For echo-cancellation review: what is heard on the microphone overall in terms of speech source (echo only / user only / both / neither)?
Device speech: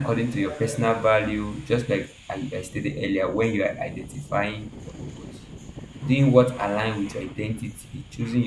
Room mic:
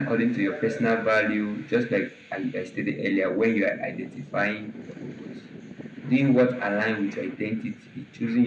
echo only